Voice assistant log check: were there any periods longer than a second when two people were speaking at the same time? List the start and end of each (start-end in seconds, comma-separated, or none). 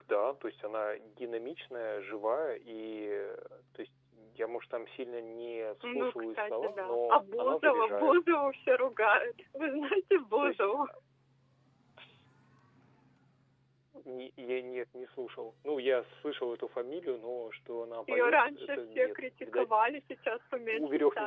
5.8-8.2, 18.1-19.7